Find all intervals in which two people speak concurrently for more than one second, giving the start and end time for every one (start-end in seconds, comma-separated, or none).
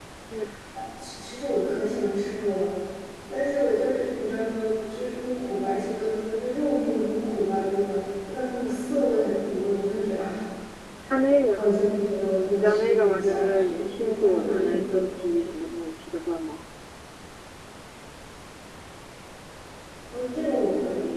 12.5-15.1